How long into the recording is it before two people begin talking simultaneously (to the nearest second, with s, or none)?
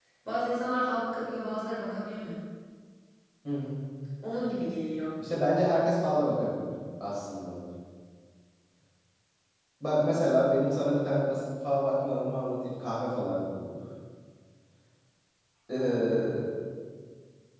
none